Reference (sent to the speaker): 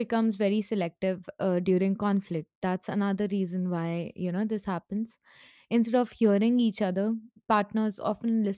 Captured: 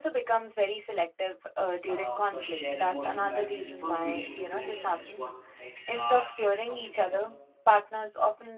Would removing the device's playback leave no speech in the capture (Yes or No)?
No